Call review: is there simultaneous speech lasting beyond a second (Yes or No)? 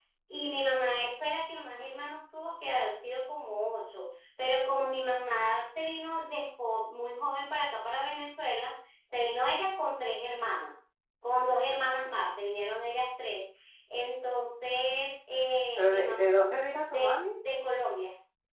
No